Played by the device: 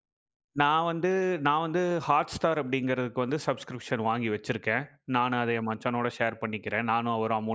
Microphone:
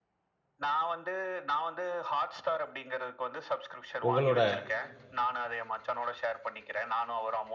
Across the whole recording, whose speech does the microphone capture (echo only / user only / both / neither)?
both